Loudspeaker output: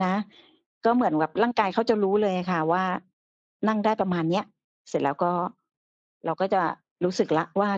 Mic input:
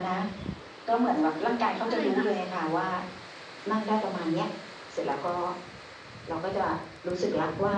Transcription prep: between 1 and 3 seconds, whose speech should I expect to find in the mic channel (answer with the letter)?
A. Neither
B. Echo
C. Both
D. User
C